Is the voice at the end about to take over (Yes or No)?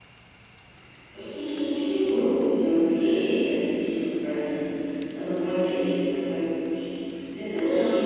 No